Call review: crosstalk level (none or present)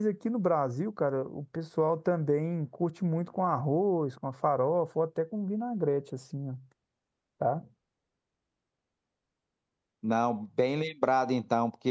none